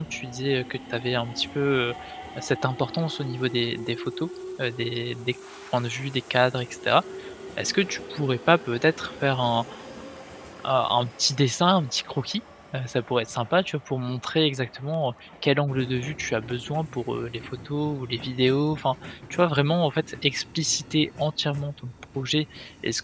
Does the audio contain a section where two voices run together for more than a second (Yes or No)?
No